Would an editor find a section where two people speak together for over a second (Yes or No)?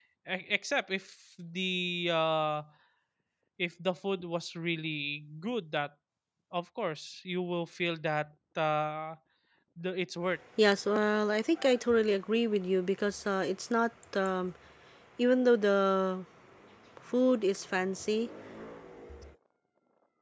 No